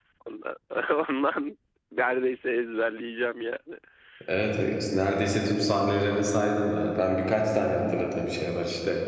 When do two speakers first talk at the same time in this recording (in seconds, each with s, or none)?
none